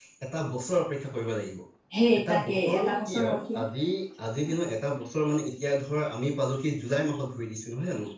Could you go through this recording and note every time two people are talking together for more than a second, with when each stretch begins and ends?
2.3-3.6

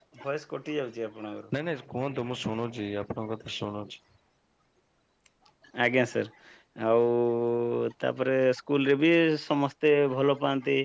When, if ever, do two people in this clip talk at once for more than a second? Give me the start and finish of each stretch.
none

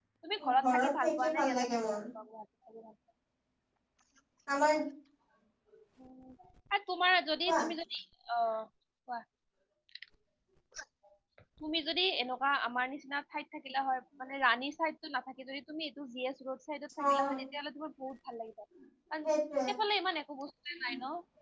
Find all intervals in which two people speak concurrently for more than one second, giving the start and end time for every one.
0.6-2.0

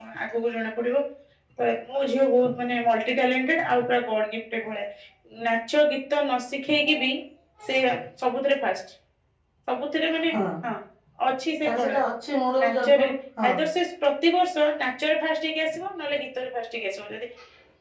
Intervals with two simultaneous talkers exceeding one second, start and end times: none

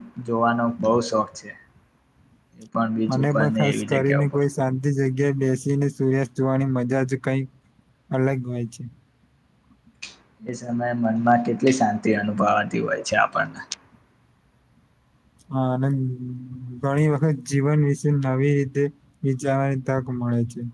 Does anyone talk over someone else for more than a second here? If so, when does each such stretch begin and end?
3.1-4.4

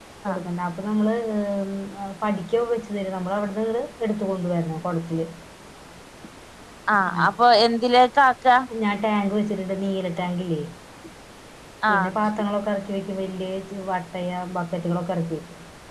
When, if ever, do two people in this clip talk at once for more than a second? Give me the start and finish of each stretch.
none

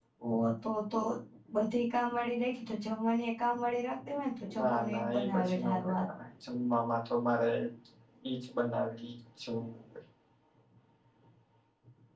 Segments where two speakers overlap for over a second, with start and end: 4.6-6.0

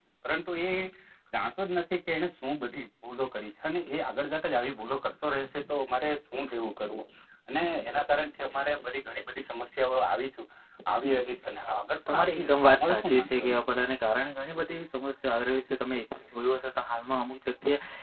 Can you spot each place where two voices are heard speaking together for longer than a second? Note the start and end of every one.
12.1-13.6

